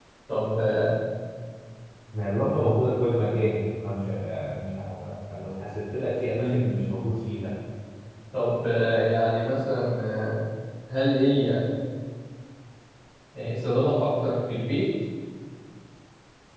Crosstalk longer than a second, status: none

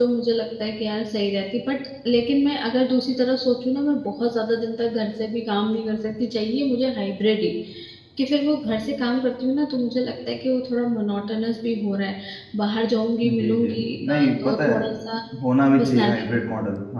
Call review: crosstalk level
present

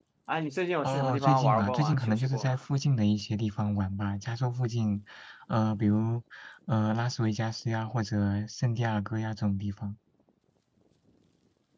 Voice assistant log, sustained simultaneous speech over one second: present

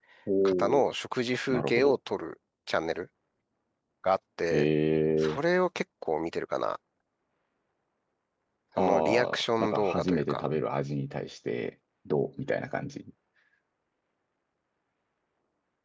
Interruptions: present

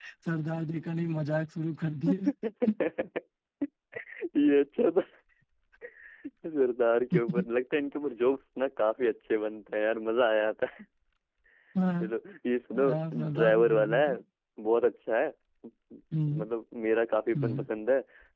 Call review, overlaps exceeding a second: present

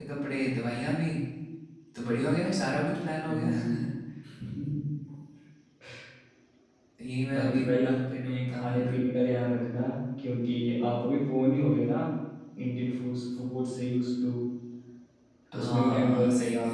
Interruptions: present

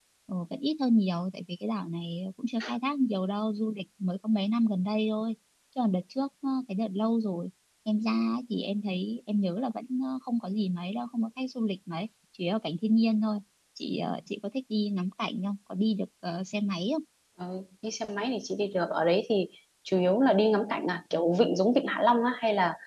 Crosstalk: none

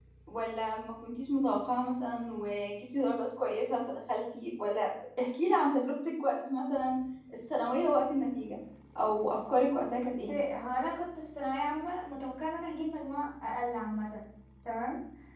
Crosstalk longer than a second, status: none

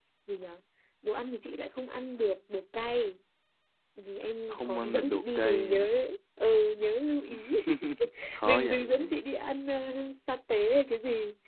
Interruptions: present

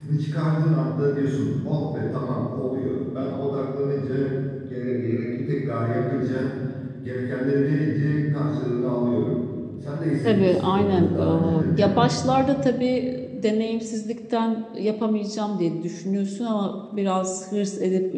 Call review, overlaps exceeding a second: present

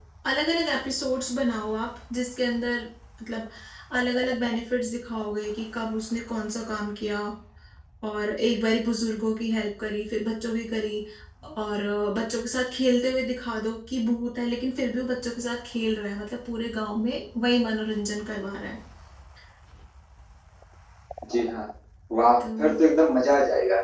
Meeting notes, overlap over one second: none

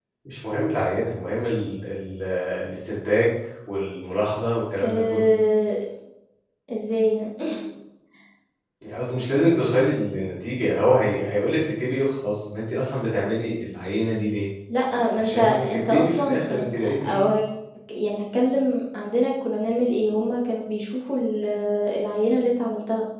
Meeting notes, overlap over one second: present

